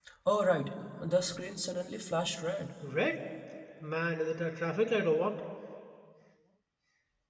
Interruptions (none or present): none